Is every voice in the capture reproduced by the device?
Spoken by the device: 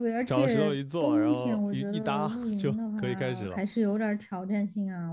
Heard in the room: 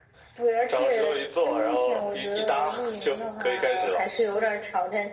Yes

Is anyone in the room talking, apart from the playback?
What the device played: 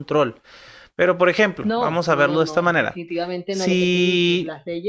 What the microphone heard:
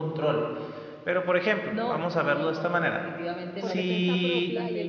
Yes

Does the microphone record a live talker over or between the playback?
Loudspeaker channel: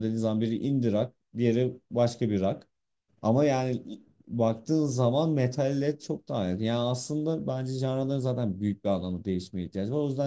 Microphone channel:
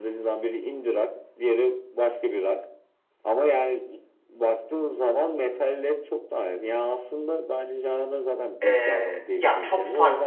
Yes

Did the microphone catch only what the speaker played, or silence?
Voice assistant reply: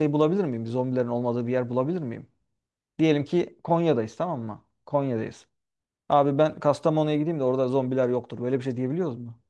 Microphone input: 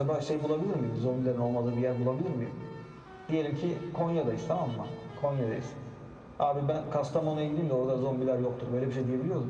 Yes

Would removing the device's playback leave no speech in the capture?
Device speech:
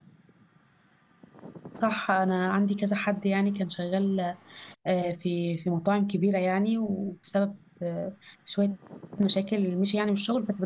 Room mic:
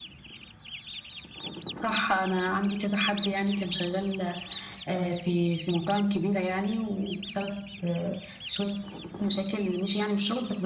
Yes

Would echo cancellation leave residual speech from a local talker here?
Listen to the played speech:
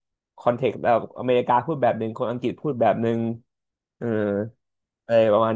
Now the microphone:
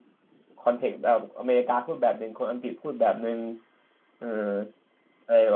No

